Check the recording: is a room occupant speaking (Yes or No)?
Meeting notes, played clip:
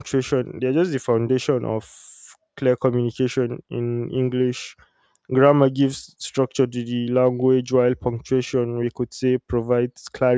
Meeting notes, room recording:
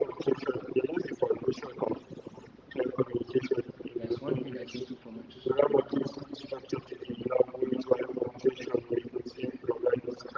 Yes